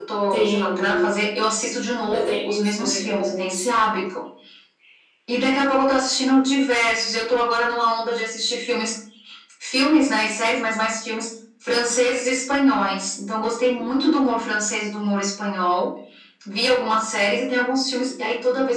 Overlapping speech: Yes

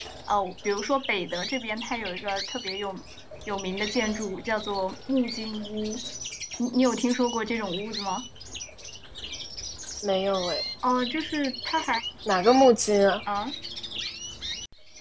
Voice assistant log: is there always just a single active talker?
Yes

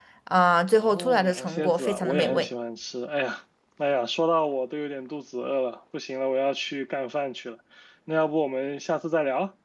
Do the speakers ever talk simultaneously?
Yes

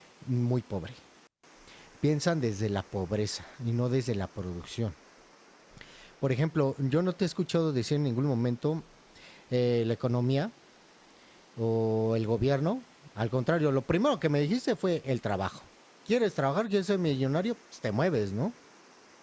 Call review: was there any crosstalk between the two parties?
No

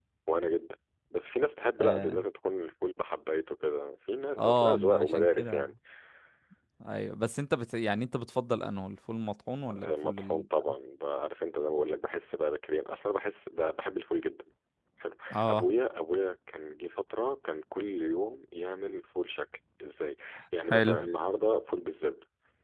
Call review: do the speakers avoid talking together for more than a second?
No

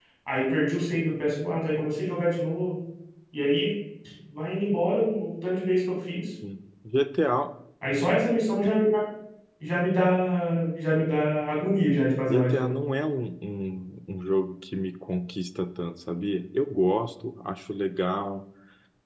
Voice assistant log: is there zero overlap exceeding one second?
Yes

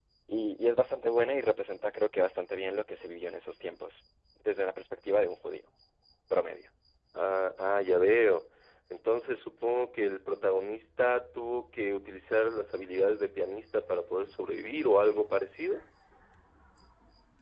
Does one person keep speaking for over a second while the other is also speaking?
No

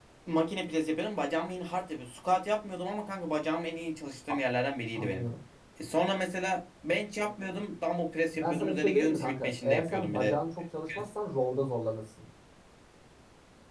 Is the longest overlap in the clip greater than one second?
Yes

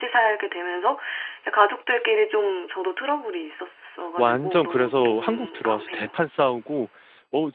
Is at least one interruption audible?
Yes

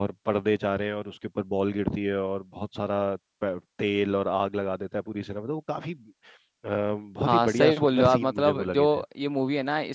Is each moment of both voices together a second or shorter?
No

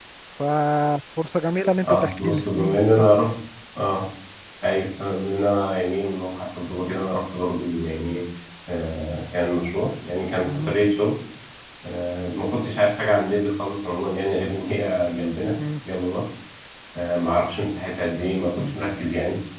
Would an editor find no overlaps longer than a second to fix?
No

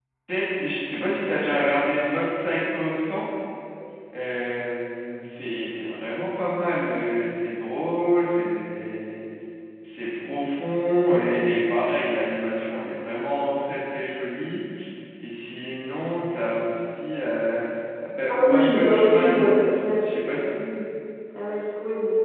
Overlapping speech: Yes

